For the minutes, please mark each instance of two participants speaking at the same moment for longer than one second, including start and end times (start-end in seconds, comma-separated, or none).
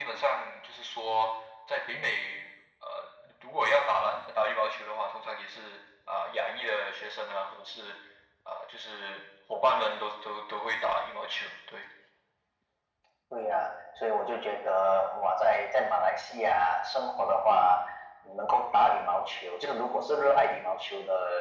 none